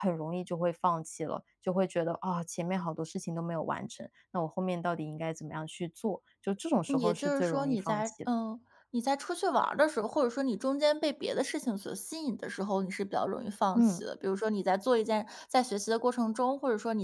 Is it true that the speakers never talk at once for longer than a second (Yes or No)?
No